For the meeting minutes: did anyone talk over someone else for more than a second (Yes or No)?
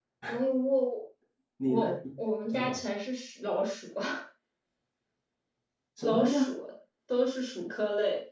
No